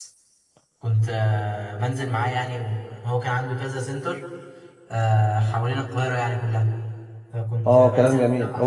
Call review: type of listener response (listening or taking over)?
taking over